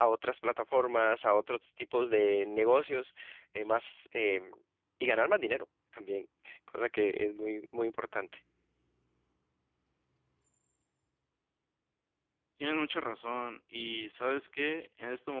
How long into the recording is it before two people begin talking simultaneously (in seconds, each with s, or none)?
none